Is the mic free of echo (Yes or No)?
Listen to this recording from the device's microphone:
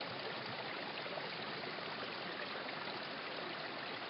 Yes